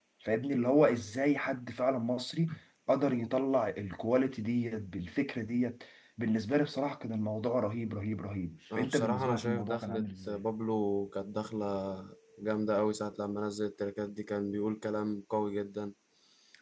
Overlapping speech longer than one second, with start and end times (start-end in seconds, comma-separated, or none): 8.8-10.4